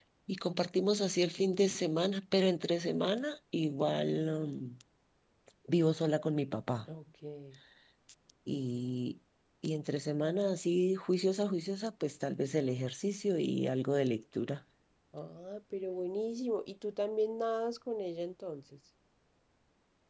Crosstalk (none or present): none